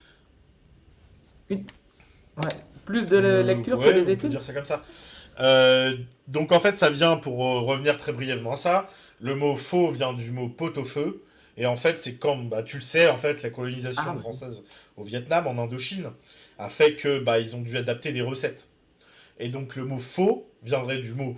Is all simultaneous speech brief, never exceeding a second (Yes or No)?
No